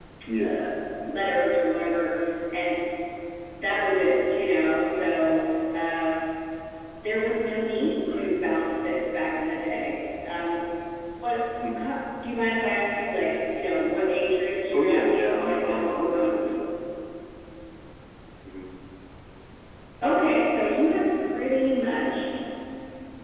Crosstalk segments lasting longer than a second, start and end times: 14.7-16.3

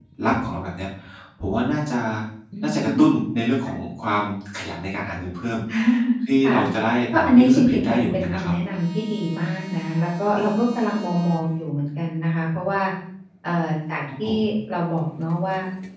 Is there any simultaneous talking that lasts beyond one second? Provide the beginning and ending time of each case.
7.1-8.5

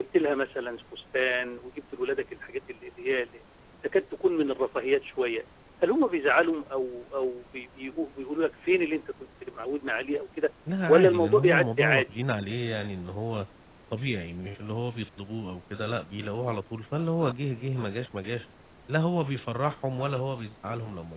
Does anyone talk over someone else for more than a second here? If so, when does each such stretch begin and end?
10.9-12.2

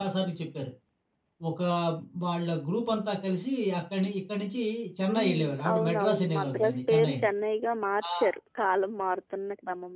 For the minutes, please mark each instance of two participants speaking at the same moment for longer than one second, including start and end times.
5.1-7.2

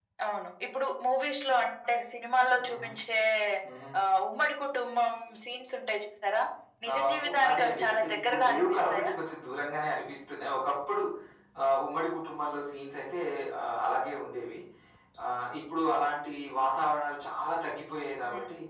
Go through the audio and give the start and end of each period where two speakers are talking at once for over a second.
6.9-9.1

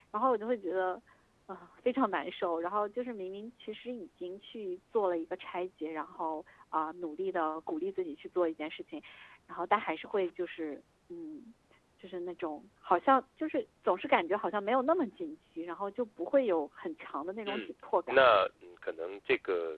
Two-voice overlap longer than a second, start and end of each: none

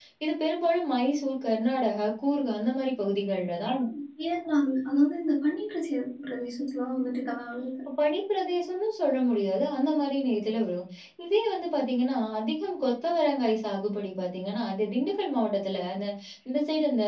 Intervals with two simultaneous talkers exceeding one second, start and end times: none

